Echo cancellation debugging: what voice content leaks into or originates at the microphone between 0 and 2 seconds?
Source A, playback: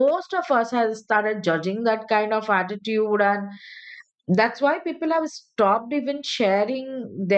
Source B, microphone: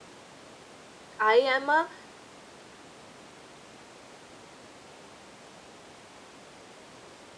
user only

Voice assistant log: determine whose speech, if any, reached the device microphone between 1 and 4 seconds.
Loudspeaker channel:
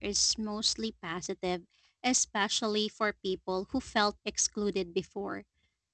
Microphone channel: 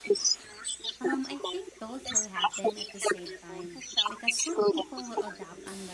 both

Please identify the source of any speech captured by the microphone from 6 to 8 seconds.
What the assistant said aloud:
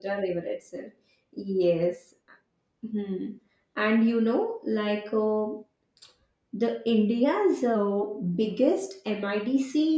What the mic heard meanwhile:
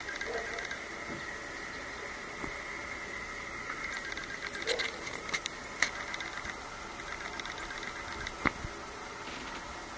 neither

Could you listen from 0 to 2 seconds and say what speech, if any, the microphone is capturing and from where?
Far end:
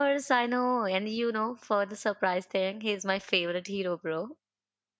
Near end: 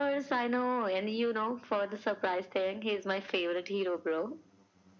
echo only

